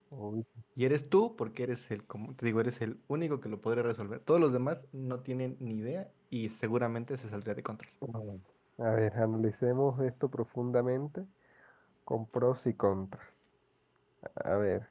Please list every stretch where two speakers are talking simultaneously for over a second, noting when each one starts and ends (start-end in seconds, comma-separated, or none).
none